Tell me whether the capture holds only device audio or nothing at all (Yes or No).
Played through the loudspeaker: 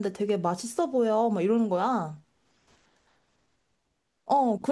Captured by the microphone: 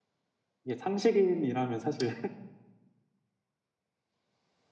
No